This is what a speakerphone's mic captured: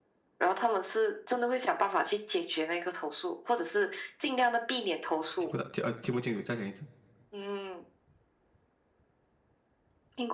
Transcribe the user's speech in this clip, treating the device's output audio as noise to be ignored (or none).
听不到，听呃听不清楚，再讲一次。